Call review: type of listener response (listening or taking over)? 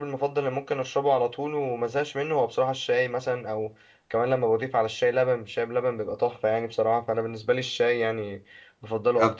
taking over